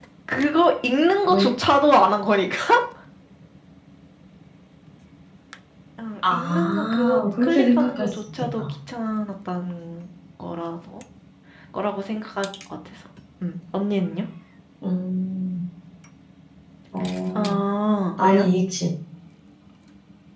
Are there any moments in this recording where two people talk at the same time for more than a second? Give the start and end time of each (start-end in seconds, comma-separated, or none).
6.3-8.6